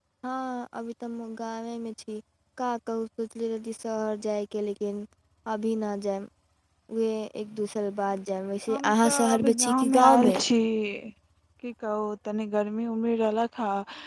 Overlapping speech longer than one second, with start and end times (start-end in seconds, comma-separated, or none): 8.7-10.4